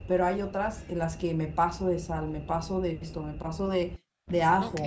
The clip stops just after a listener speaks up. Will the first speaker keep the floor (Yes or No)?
Yes